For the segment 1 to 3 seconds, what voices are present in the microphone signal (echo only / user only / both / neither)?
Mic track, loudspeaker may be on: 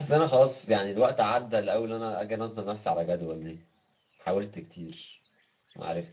user only